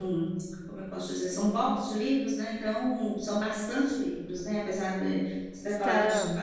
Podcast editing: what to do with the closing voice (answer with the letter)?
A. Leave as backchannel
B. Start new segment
A